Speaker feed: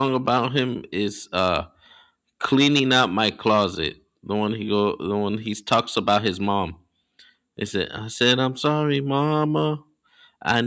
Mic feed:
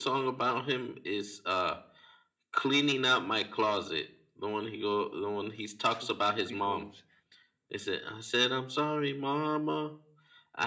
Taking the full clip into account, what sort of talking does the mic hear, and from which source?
both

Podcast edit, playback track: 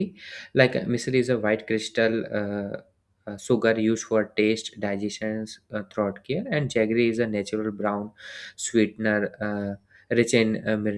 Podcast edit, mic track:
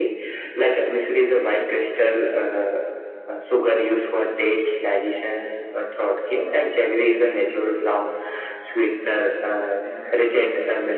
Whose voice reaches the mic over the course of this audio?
both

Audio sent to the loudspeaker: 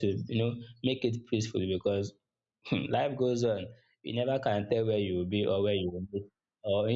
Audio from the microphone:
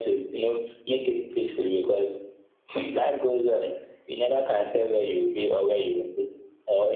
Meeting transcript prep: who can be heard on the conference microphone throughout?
echo only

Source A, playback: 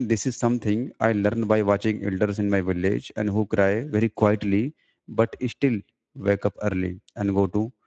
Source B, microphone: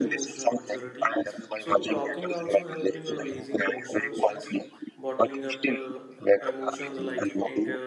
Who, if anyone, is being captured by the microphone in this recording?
both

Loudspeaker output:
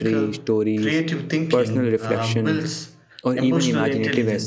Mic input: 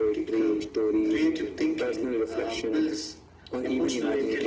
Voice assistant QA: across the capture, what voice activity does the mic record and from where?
echo only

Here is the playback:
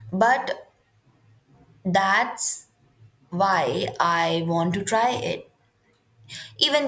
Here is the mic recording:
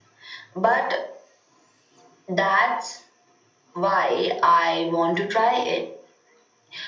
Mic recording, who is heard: echo only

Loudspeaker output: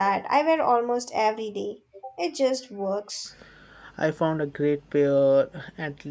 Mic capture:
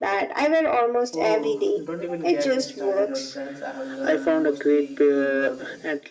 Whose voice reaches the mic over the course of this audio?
both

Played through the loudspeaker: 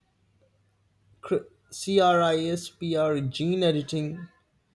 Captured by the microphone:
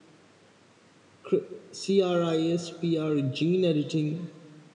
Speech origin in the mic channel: echo only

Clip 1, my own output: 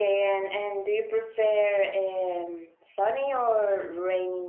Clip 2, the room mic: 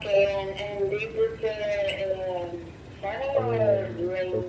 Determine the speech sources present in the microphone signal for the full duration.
both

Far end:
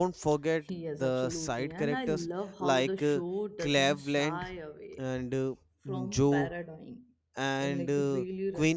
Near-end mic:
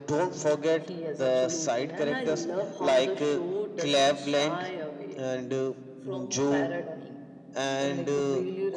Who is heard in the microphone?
echo only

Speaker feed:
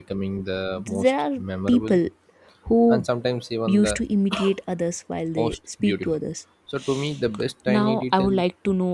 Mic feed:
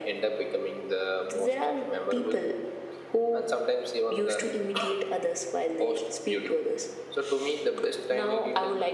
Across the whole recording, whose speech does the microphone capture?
echo only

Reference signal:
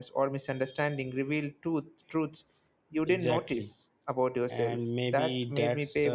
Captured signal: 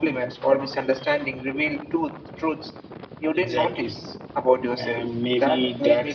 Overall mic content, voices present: echo only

